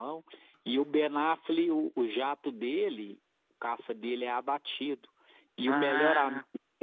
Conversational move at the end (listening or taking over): listening